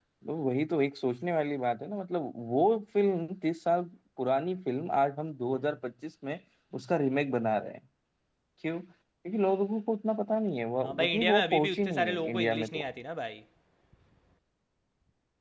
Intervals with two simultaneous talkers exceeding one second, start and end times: 10.8-12.8

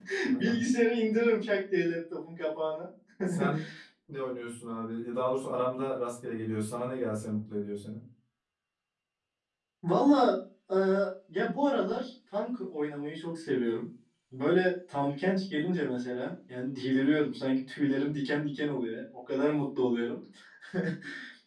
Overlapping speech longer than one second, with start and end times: none

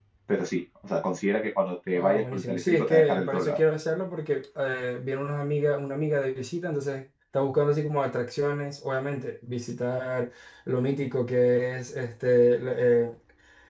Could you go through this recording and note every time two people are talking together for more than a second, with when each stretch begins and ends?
1.9-3.6

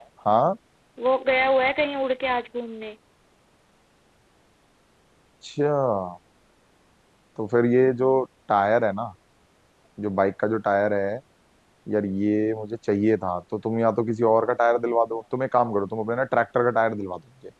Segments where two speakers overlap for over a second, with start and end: none

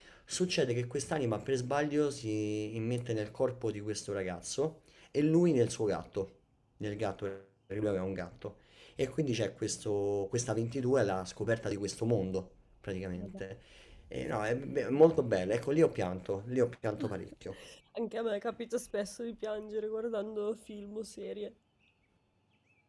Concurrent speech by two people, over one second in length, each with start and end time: none

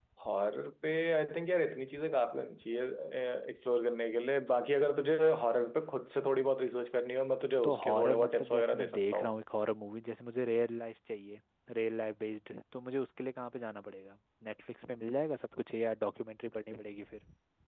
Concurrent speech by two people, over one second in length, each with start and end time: 7.6-9.3

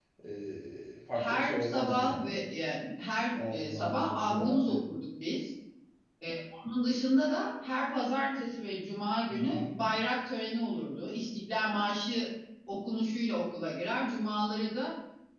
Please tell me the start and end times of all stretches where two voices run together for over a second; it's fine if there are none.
1.1-2.4, 3.4-4.8

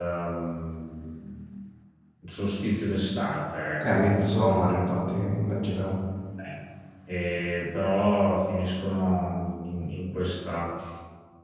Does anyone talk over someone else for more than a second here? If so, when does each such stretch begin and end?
none

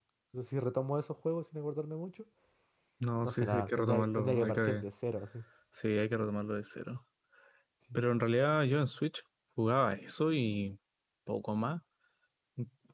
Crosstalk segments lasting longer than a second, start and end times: 3.2-4.8

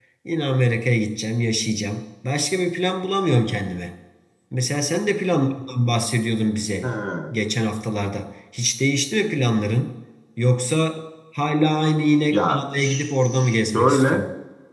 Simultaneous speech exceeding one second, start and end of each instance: 12.3-14.2

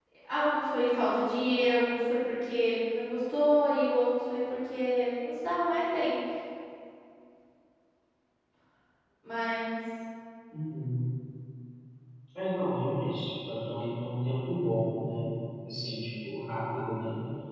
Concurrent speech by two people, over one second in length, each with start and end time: none

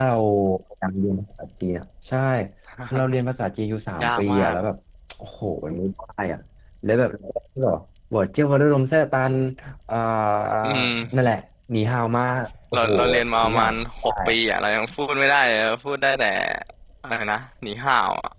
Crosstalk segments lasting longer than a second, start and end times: 12.7-14.4

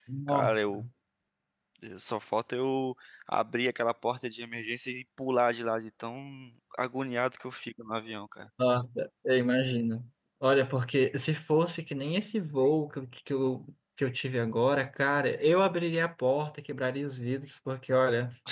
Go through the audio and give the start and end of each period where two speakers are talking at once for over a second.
none

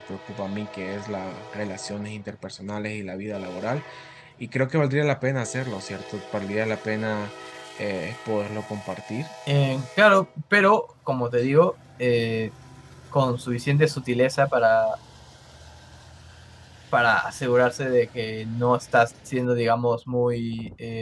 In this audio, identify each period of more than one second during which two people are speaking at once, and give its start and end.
none

